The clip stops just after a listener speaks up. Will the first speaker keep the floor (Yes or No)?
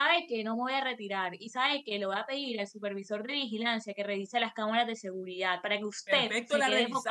No